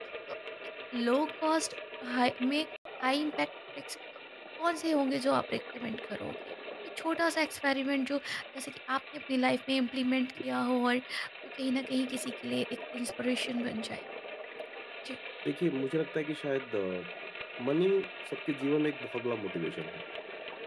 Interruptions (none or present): none